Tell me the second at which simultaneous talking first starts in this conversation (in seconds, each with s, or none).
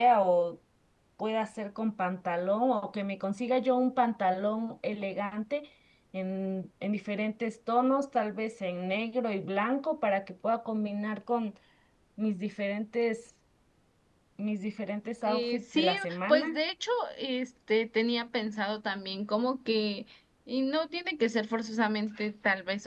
15.2 s